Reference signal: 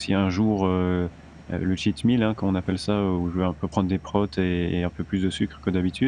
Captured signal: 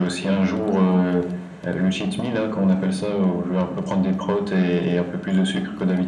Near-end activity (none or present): none